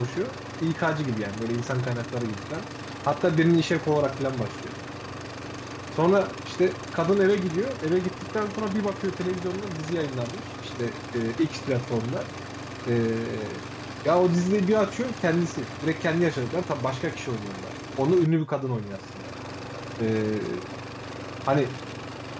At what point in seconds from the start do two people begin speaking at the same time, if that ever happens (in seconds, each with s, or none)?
none